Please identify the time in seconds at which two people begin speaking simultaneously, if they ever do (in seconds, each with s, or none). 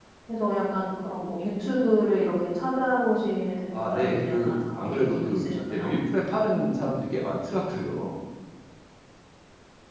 3.7 s